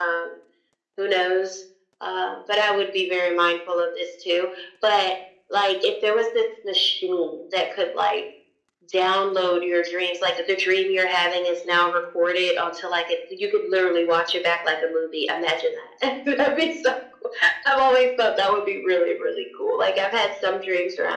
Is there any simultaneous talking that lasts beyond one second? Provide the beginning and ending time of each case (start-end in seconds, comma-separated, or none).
none